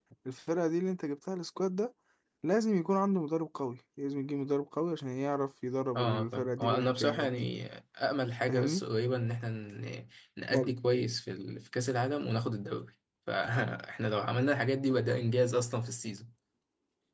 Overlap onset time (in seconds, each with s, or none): 6.0 s